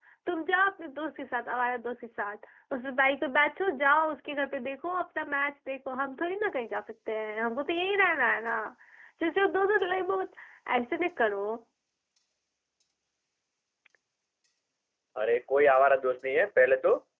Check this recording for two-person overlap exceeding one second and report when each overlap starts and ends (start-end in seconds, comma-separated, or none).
none